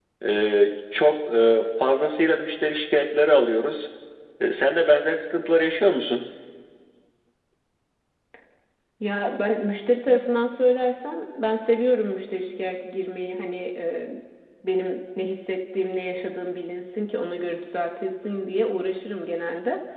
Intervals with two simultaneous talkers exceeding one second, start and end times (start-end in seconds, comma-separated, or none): none